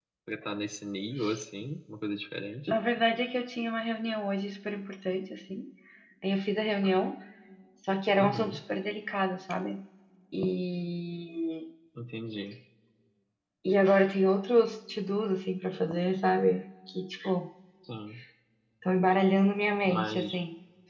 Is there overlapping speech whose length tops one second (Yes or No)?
No